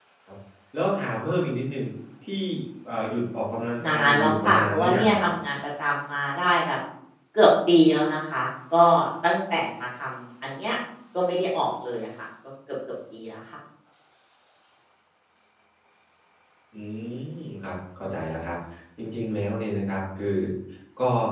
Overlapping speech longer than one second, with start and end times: 3.9-5.2

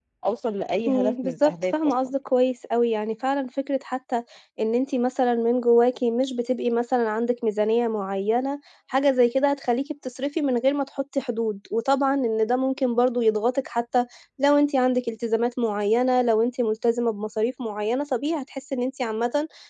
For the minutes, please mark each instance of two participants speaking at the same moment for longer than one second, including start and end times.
0.9-2.1

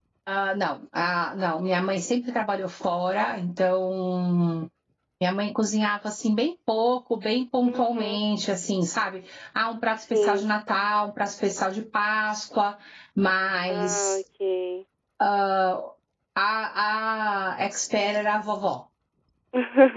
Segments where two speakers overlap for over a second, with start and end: none

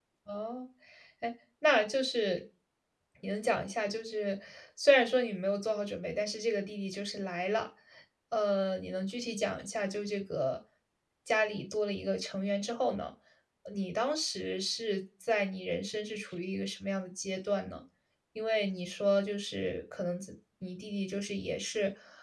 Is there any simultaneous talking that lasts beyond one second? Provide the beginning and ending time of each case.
none

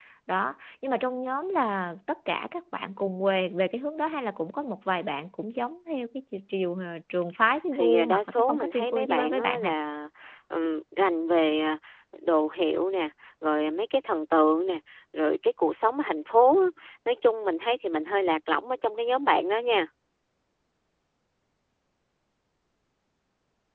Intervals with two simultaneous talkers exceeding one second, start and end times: 7.8-9.7

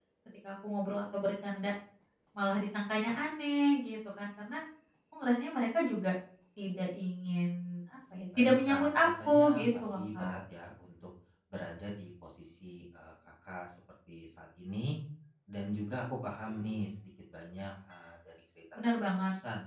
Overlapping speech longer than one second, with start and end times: 8.4-10.3

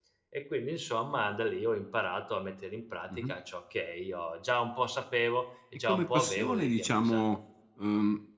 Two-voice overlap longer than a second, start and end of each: 5.8-7.2

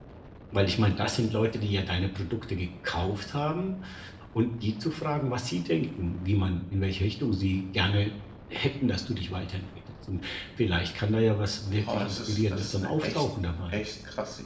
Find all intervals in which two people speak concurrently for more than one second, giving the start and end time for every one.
11.8-13.2

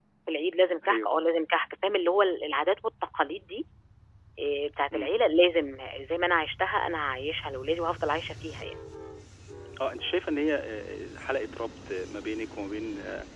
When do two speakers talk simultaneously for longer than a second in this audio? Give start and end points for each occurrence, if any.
none

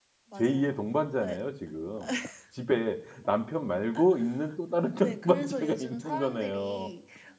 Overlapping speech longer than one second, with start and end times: 5.0-6.9

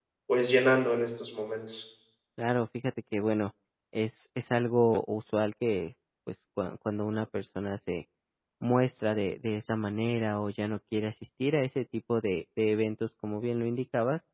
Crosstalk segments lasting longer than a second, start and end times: none

